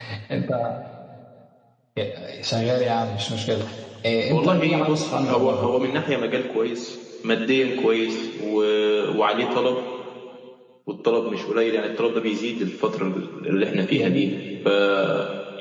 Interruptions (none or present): present